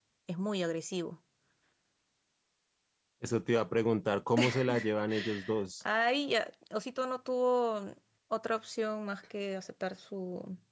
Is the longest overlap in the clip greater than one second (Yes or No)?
No